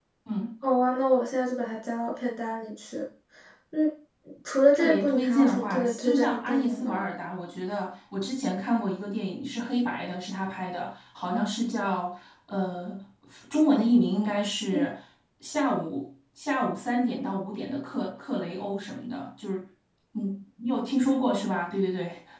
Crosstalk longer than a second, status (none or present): present